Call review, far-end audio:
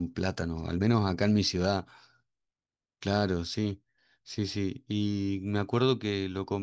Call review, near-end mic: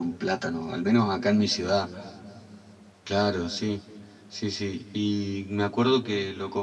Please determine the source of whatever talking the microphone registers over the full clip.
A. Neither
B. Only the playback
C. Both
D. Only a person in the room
B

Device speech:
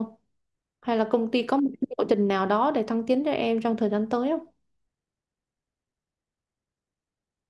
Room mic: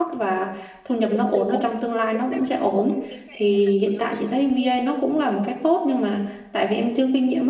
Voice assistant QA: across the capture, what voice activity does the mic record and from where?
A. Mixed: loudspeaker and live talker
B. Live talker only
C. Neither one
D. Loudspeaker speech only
A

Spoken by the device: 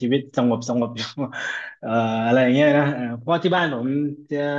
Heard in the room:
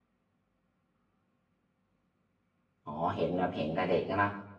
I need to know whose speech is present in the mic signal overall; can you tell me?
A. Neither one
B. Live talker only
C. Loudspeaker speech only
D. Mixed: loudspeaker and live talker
B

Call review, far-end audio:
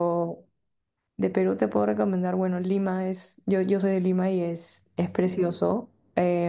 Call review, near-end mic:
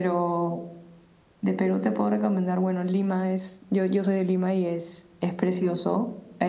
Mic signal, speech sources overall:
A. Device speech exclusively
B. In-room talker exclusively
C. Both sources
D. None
A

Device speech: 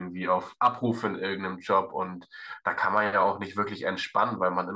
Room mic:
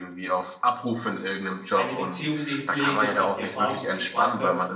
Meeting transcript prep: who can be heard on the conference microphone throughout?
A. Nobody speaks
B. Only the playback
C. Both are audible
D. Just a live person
C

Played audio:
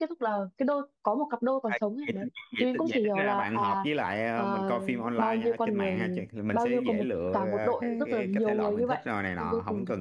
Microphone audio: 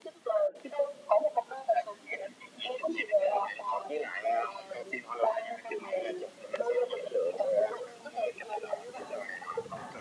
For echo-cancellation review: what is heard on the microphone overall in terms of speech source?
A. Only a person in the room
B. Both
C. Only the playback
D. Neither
C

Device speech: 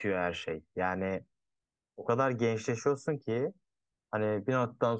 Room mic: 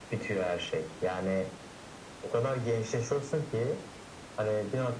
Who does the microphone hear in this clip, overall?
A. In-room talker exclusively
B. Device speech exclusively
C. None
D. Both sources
B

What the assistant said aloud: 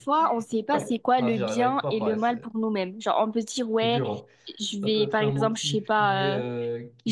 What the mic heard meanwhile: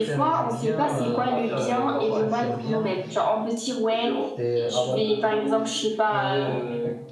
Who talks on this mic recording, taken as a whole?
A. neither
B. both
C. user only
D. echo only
B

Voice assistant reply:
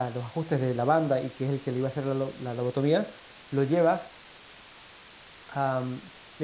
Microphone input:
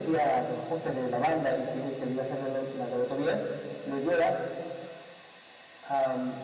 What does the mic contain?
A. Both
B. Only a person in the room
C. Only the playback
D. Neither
C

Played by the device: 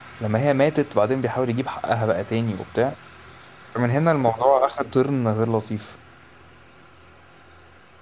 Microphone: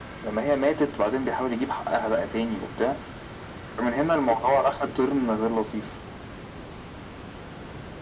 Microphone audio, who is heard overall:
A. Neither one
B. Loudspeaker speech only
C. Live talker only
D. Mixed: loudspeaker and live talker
B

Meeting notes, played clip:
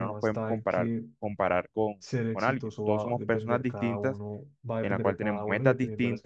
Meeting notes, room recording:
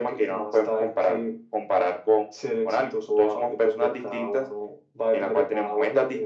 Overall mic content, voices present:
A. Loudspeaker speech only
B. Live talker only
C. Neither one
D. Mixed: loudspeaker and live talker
A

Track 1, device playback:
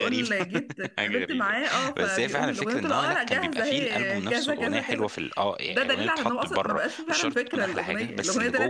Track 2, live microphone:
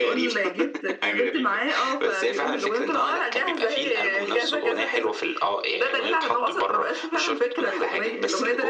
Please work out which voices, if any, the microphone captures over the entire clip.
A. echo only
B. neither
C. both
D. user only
A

